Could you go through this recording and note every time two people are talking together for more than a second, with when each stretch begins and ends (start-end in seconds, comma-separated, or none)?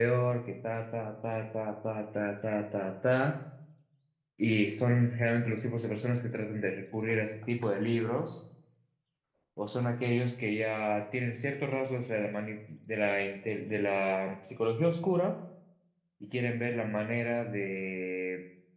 none